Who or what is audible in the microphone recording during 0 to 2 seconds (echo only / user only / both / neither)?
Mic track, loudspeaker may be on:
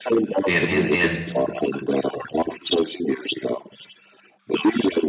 both